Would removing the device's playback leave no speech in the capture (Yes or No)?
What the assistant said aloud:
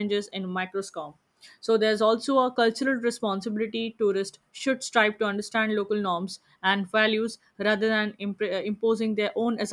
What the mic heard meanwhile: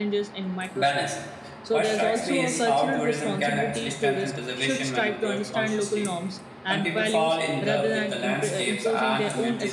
No